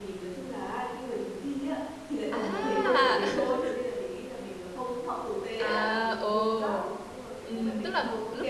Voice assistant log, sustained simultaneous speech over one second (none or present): present